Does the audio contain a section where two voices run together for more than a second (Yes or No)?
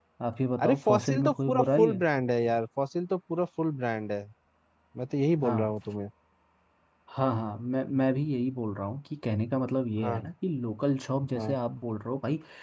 Yes